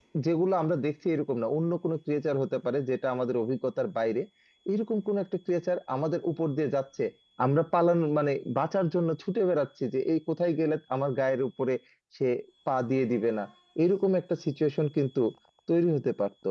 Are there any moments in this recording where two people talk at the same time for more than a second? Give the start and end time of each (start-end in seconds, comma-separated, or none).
none